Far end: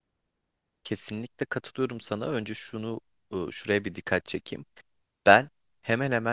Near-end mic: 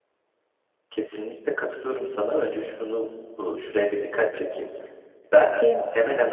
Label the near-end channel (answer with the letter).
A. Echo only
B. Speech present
B